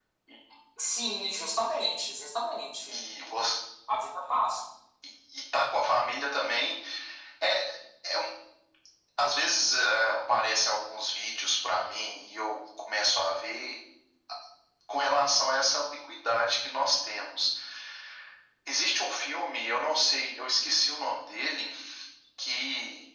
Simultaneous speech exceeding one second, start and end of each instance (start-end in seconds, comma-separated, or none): none